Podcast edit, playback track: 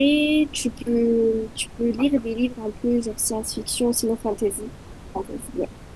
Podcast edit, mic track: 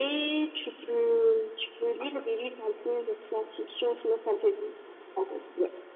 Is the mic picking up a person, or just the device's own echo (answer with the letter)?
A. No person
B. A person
A